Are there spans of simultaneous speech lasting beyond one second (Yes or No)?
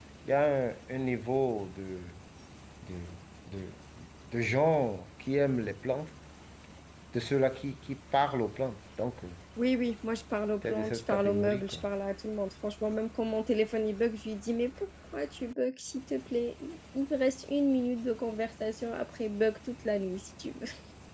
Yes